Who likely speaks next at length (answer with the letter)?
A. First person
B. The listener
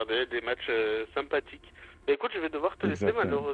A